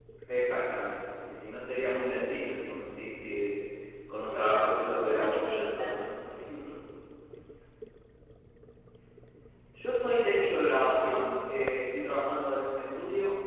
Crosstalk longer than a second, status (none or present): present